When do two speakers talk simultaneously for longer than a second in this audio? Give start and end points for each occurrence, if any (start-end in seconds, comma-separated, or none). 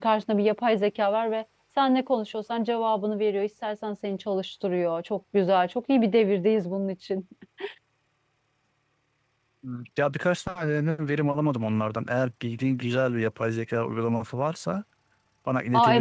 none